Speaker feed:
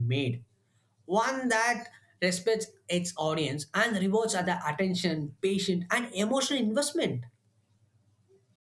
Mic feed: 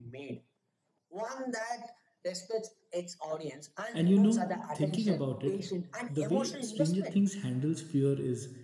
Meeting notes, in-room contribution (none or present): present